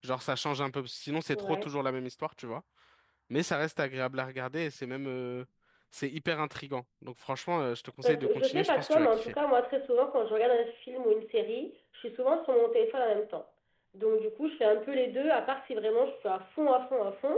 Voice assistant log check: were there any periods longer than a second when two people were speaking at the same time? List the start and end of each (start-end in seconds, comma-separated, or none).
8.0-9.3